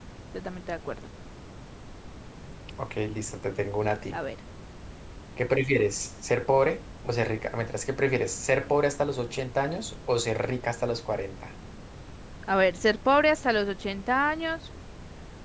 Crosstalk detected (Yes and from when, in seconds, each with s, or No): No